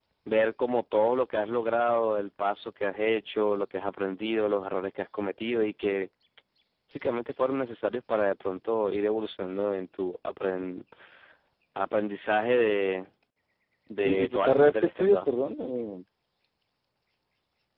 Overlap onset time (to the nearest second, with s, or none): 14 s